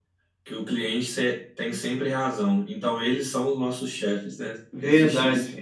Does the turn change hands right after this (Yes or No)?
Yes